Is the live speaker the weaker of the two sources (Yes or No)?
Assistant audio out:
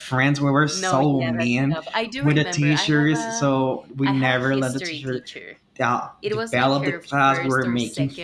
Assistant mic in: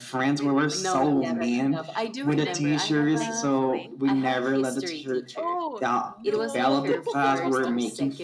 Yes